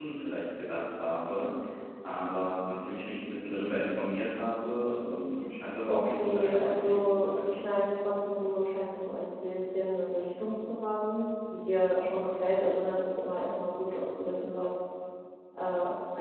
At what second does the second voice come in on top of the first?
5.8 s

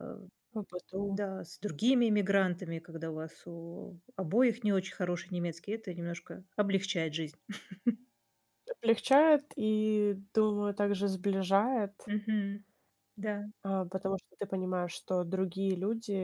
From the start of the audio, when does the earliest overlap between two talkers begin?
none

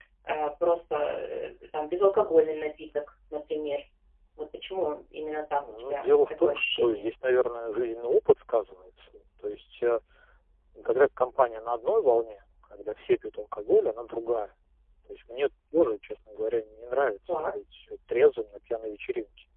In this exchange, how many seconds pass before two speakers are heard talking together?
5.6 s

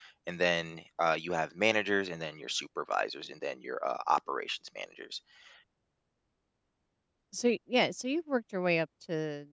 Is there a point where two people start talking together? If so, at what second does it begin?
none

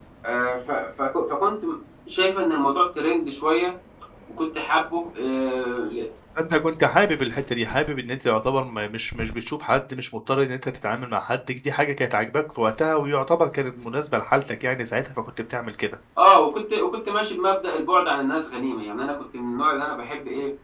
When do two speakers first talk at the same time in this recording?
none

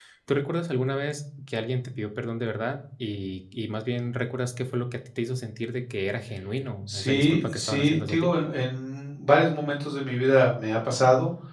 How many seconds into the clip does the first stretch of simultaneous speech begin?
6.9 s

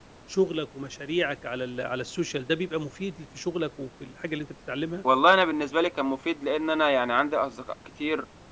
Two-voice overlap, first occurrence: none

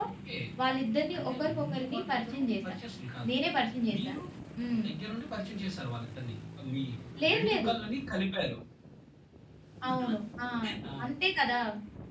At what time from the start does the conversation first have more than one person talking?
1.2 s

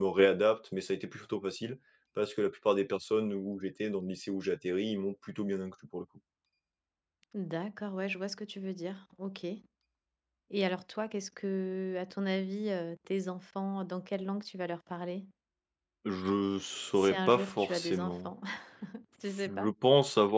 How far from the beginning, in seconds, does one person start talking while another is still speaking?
17.0 s

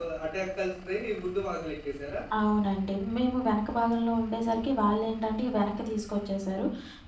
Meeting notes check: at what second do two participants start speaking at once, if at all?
none

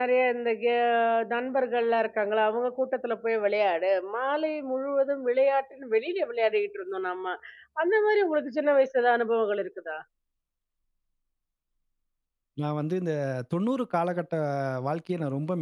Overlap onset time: none

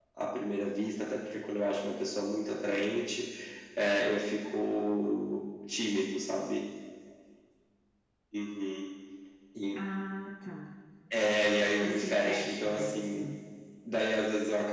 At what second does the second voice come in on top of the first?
11.8 s

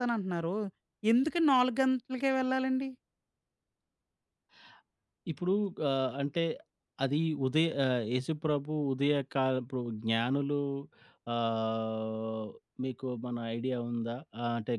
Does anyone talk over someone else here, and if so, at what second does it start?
none

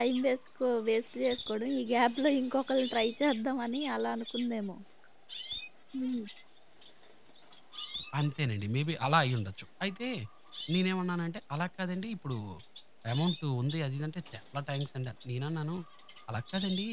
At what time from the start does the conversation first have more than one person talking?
none

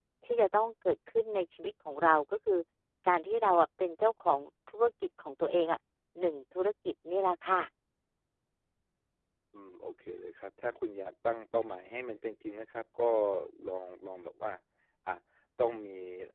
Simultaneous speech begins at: none

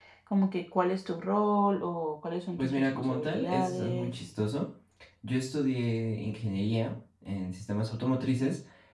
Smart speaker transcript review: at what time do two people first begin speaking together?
2.6 s

